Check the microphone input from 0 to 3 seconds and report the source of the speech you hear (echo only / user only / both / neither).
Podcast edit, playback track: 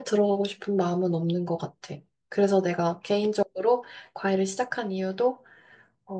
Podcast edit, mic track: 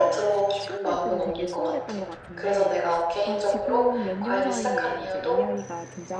both